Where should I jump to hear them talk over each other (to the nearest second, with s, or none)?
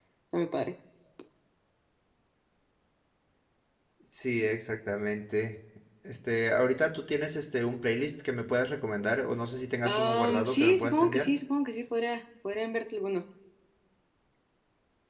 10 s